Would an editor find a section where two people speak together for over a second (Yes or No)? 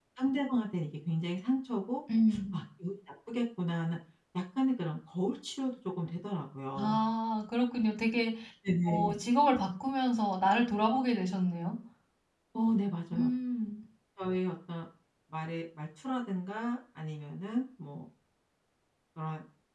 No